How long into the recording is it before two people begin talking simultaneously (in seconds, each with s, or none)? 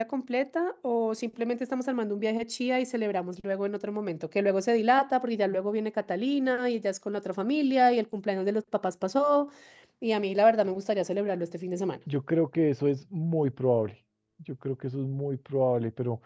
none